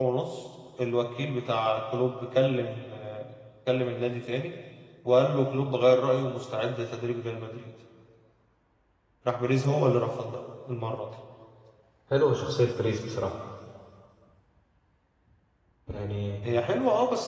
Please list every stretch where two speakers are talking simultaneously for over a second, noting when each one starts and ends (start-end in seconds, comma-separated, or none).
none